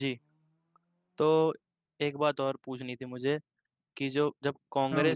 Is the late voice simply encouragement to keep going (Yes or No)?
Yes